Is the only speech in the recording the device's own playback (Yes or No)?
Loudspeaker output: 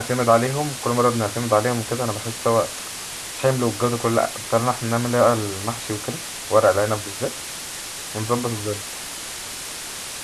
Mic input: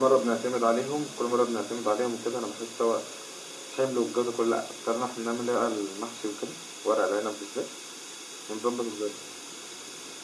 Yes